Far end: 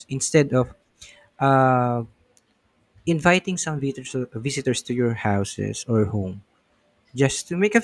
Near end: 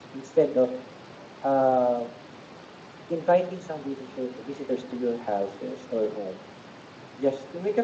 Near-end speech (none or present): none